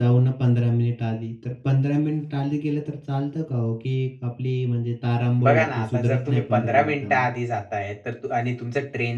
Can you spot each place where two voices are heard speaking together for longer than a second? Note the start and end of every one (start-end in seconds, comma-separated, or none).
5.4-7.3